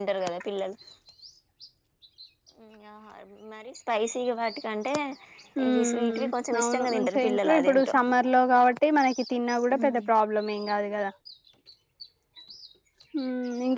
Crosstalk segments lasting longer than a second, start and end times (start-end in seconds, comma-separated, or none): 5.7-8.0